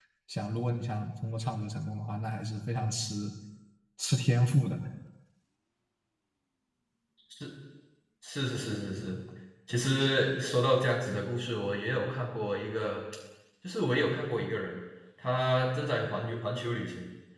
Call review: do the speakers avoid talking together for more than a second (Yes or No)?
Yes